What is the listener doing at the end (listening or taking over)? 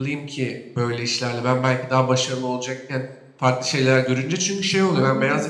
listening